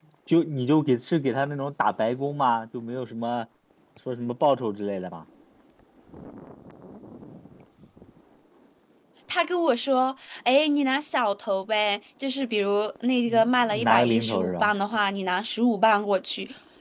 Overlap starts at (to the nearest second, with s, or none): 13 s